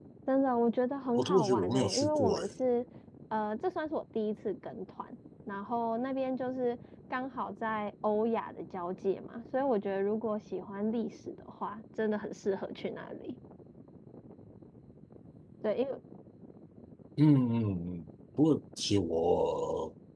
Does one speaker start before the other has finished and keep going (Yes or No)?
Yes